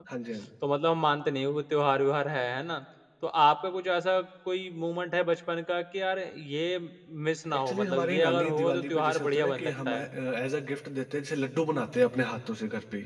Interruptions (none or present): present